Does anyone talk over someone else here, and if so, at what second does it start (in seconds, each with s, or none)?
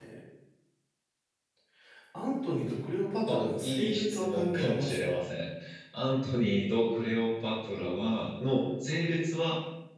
3.3 s